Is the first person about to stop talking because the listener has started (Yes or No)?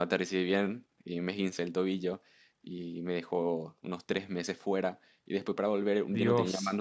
No